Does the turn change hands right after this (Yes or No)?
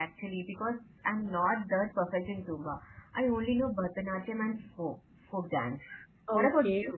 Yes